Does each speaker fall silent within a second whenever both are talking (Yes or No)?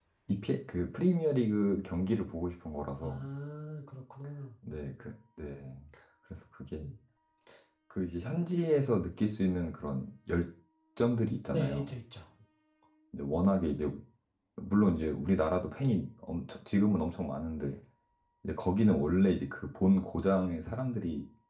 Yes